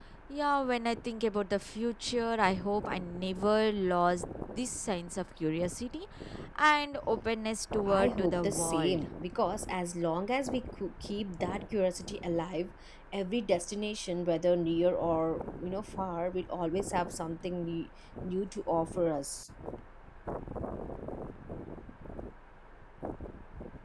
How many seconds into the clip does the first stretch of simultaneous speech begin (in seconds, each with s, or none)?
7.8 s